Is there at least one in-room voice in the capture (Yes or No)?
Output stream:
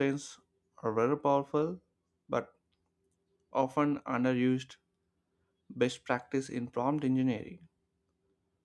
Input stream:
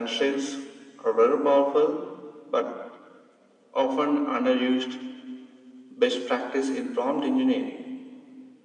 No